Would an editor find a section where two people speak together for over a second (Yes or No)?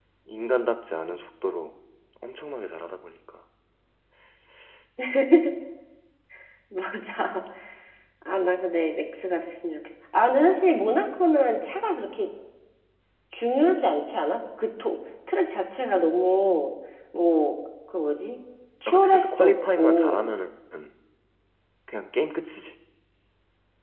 Yes